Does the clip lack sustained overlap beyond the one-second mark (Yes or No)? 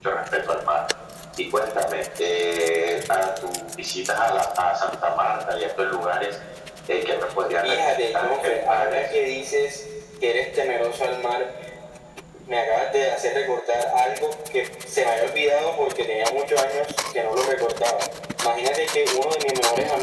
No